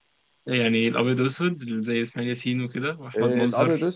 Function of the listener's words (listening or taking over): taking over